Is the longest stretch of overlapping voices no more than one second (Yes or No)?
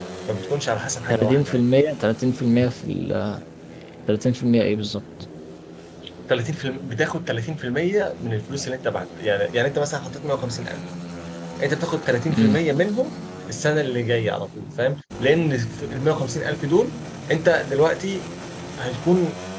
Yes